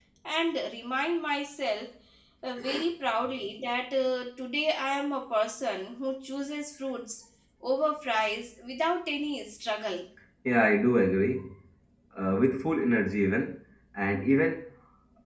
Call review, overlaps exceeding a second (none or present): none